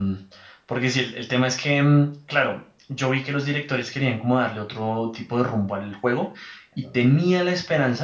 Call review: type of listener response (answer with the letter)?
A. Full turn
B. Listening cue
B